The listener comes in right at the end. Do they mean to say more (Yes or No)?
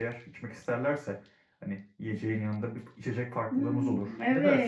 Yes